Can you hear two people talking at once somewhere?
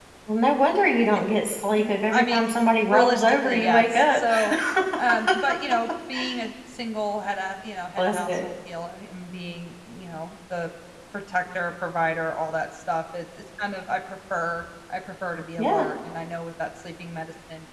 Yes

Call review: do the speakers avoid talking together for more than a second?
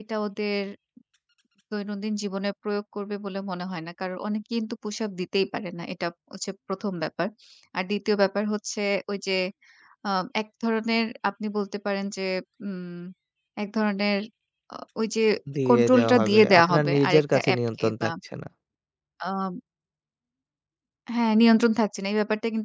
No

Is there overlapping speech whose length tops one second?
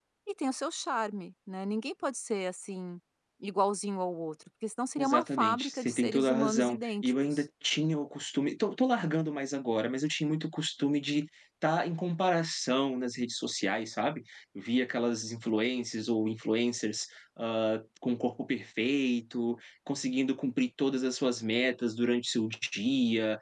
Yes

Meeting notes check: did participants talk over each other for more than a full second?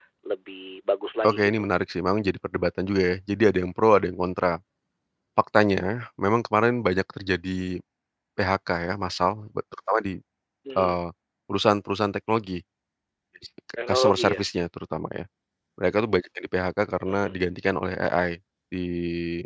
No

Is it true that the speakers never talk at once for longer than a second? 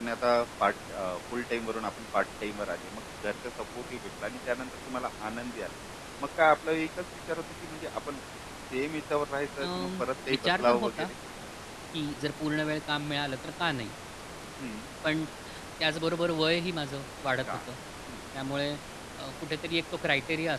No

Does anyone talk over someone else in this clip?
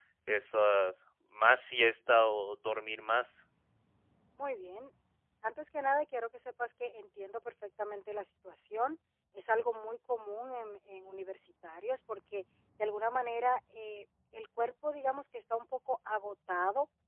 No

